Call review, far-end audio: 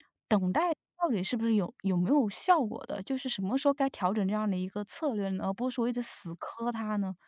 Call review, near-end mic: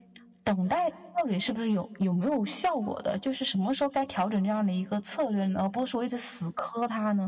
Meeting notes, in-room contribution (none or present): none